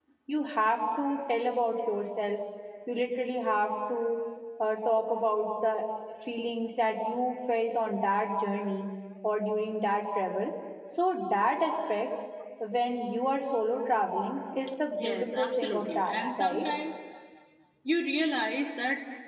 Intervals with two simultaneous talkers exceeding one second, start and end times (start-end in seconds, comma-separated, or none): 14.9-16.7